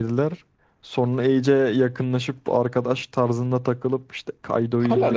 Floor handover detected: Yes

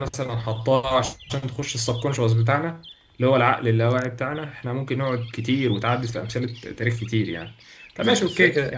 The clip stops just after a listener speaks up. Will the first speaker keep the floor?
Yes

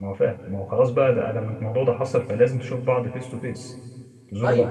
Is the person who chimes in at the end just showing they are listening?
No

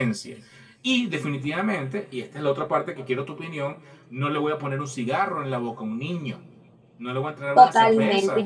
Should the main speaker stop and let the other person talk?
Yes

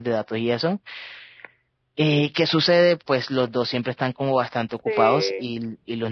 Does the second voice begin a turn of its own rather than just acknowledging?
No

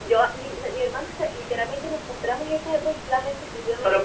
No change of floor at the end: No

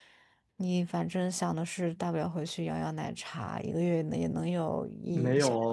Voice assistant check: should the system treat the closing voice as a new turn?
Yes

